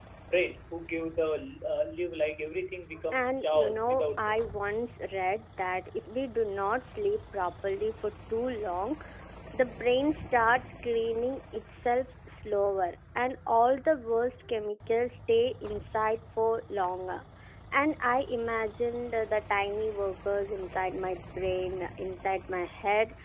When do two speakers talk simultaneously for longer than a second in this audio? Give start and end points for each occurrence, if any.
3.1-4.4

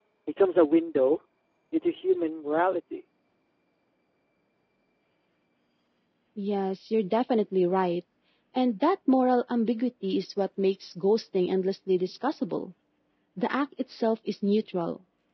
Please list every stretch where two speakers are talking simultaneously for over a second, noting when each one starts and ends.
none

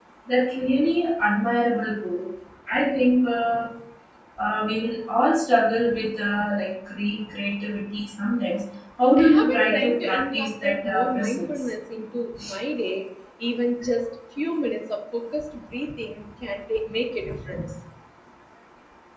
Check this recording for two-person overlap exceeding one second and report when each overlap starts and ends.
9.2-11.7

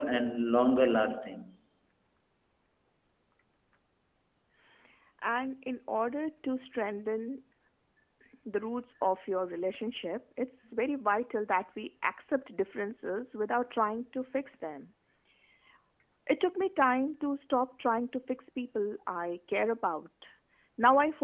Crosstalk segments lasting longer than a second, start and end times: none

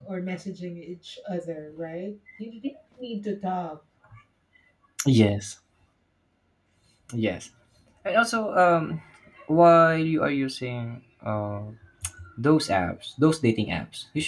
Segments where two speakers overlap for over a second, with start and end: none

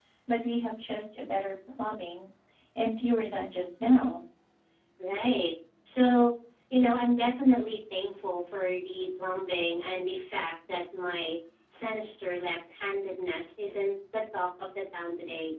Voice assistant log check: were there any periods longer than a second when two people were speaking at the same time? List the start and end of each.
none

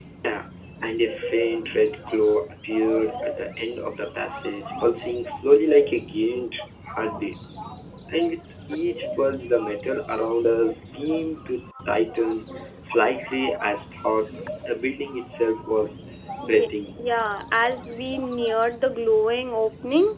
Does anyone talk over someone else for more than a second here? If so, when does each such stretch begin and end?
none

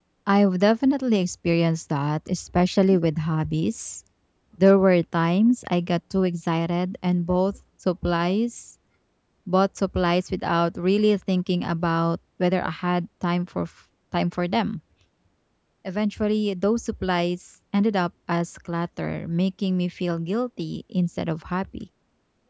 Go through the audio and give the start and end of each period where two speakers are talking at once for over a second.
none

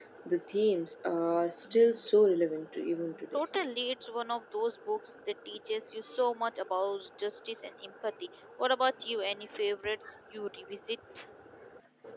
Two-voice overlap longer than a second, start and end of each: none

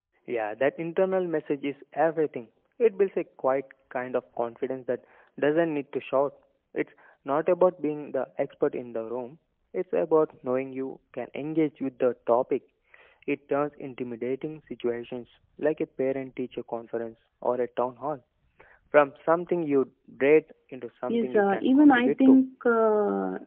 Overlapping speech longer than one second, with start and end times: 21.1-22.4

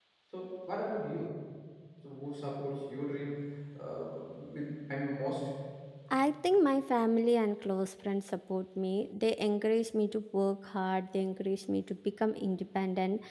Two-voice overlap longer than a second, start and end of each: none

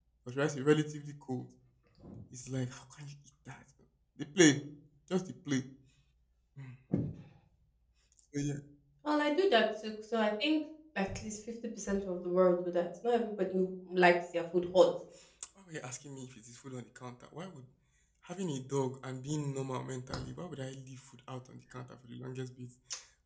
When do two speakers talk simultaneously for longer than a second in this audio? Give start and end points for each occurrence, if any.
none

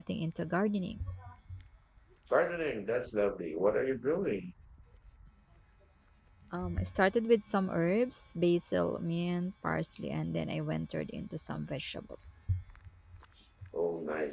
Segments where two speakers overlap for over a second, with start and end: none

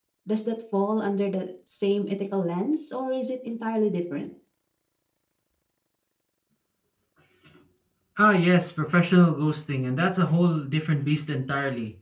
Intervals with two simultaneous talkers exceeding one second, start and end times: none

